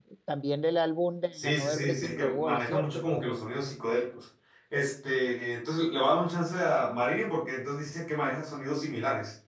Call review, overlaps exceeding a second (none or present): present